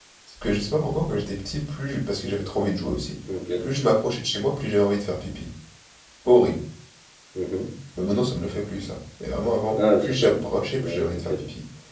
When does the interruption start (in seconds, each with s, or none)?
9.7 s